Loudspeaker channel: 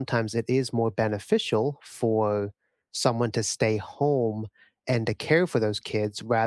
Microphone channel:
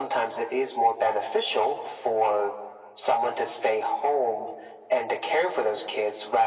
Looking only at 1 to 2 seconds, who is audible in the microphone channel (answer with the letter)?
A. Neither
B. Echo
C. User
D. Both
B